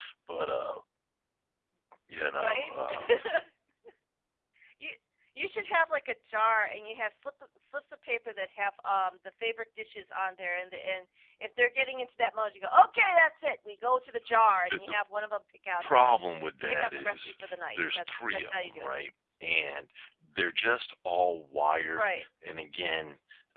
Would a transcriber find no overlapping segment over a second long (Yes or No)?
No